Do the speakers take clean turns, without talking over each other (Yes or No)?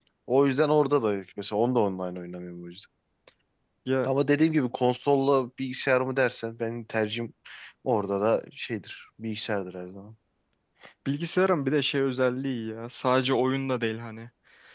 Yes